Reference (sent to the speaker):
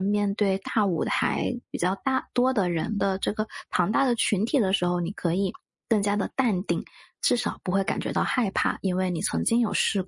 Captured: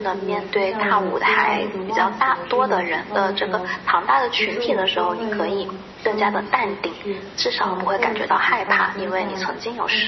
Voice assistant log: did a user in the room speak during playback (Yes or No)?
Yes